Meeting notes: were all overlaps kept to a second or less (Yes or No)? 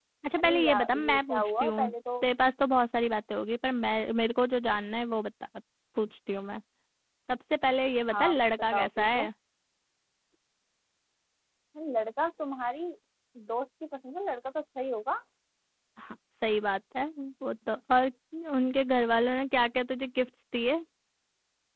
No